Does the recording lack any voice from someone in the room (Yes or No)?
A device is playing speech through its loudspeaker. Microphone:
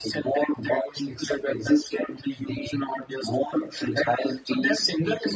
Yes